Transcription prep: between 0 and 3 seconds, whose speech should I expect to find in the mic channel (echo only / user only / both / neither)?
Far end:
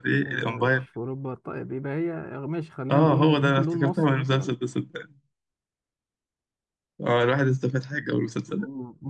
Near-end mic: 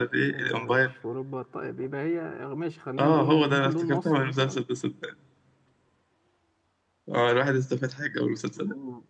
echo only